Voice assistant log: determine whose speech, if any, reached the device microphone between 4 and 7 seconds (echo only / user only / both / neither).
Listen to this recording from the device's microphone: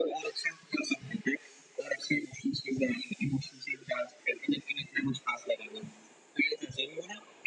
echo only